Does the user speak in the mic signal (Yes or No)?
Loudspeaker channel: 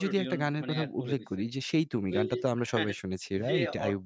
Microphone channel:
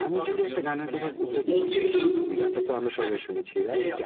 Yes